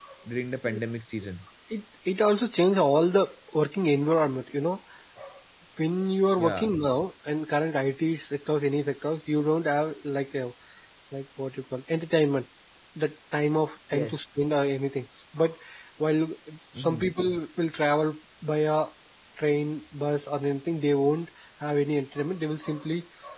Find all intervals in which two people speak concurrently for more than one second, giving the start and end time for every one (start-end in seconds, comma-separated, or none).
none